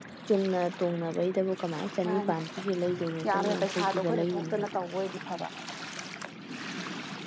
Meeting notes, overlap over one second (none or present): present